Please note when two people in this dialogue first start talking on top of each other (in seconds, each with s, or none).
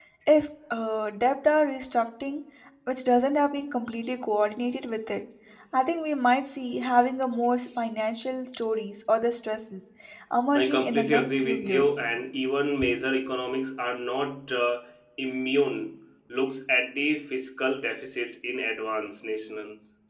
10.5 s